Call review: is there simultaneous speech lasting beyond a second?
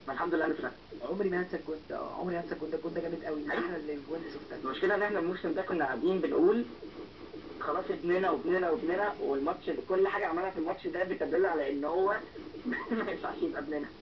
No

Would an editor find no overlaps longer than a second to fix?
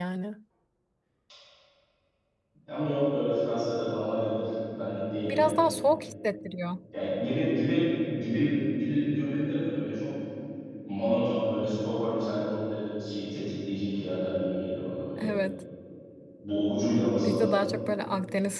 Yes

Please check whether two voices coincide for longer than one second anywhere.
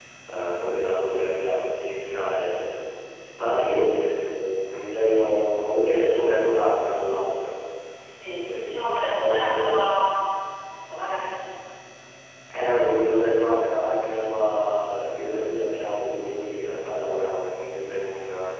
Yes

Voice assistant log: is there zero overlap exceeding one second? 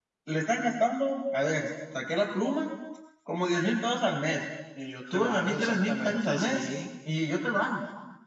No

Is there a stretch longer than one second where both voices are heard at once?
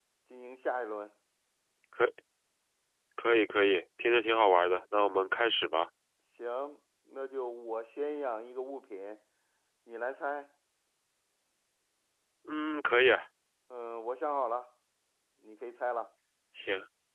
No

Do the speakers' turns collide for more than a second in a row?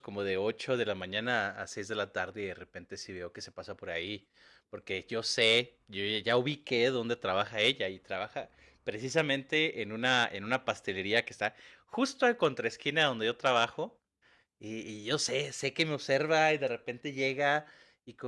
No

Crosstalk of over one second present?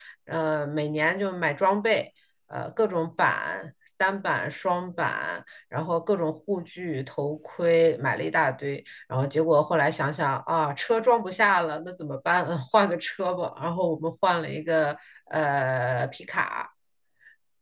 No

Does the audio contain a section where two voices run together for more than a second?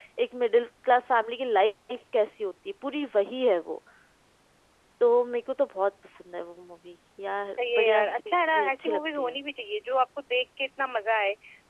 Yes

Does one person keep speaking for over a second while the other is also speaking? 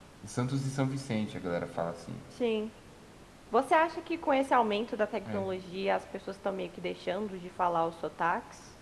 No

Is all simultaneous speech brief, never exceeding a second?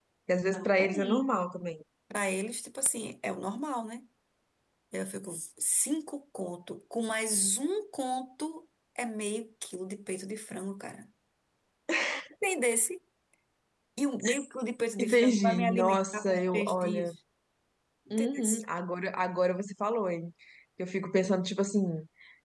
No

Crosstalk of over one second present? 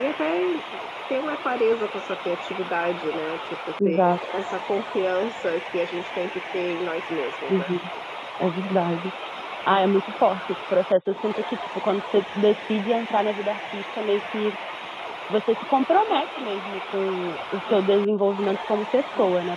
No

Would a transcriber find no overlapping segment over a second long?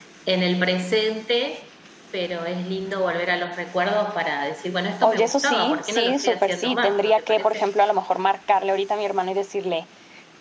No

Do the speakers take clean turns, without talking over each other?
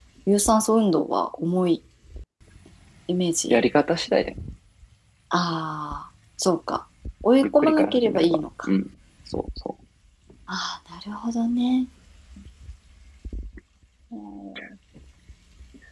No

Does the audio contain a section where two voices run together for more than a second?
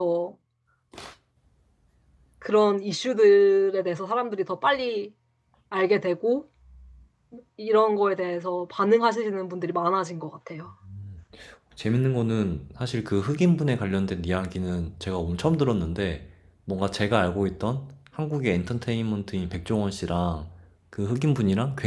No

